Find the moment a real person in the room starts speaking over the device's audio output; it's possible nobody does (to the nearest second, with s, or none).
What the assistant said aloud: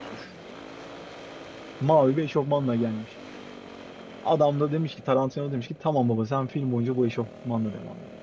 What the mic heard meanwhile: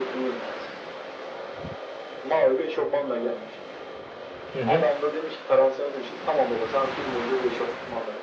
5 s